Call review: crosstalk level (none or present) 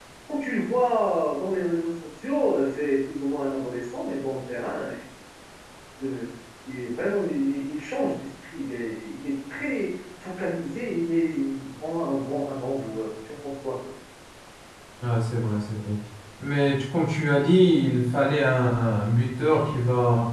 none